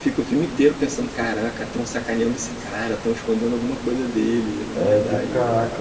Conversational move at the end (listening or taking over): taking over